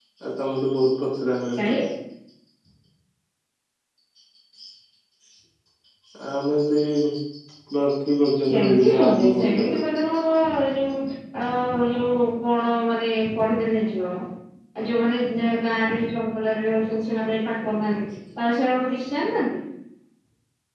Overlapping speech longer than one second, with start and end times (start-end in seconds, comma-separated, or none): 8.5-9.9